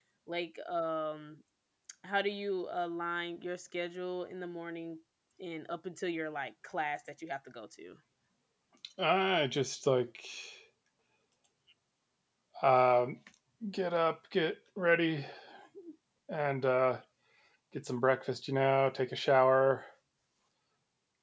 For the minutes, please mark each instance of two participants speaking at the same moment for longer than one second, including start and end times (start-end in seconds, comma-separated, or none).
none